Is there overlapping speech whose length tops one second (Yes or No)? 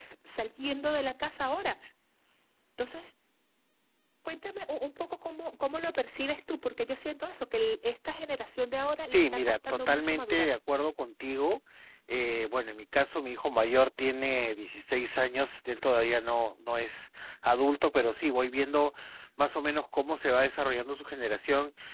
Yes